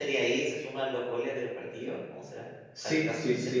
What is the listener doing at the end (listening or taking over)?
taking over